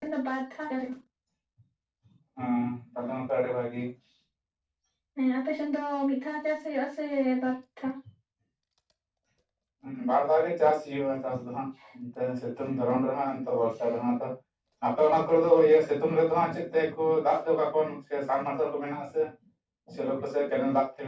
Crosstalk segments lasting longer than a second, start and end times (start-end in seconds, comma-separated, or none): none